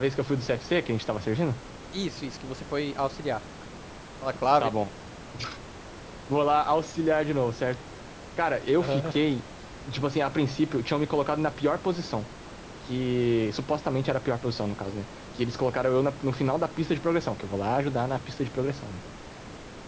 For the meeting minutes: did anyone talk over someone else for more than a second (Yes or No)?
No